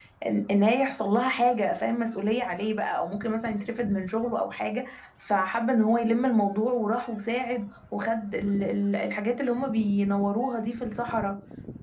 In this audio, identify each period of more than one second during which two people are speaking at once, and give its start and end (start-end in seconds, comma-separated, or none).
none